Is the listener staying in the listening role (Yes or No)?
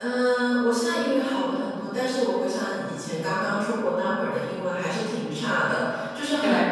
Yes